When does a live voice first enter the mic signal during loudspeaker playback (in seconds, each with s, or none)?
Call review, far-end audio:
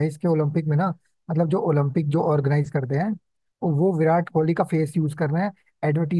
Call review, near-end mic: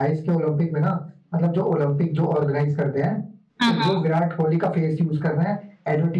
3.6 s